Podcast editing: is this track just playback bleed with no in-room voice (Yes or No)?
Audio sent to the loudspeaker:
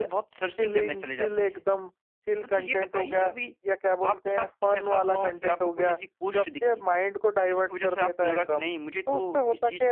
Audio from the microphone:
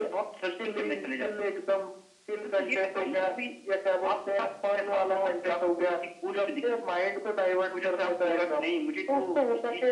Yes